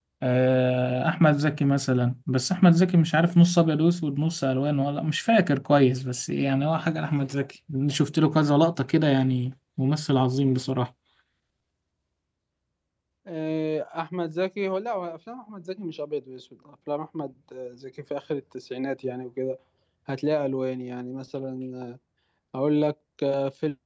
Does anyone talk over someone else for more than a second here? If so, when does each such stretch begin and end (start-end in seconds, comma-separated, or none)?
none